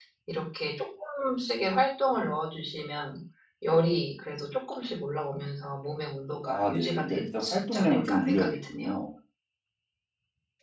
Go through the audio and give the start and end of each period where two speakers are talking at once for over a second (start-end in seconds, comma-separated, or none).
6.5-9.0